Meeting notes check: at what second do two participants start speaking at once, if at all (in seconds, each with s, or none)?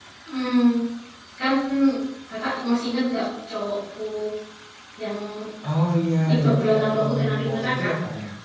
6.3 s